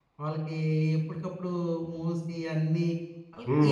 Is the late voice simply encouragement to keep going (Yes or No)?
No